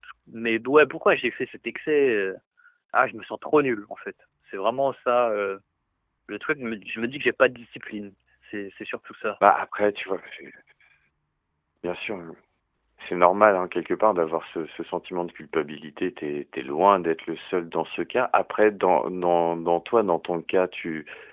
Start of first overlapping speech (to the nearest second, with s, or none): none